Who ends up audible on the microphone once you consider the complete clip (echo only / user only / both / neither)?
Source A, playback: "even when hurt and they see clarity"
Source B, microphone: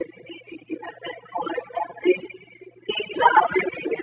echo only